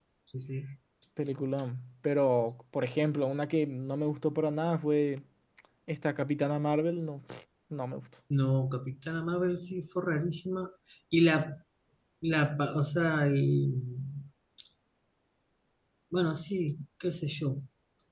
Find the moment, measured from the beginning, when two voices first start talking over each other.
none

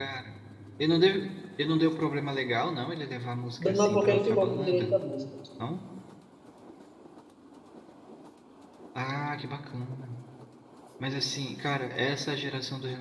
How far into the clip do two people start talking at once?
3.6 s

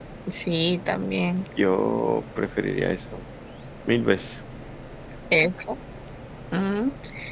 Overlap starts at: none

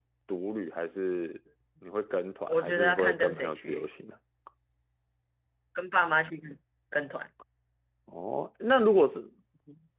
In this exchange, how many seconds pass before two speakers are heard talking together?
2.5 s

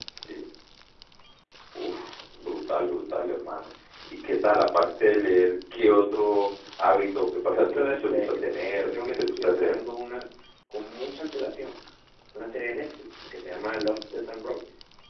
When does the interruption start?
7.5 s

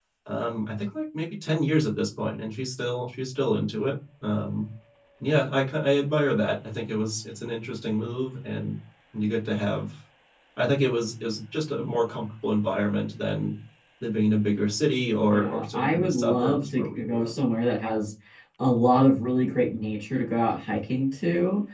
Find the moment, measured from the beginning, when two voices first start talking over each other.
15.3 s

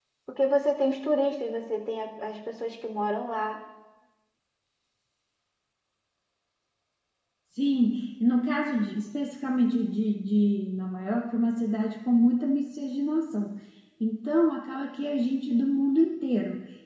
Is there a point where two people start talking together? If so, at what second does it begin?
none

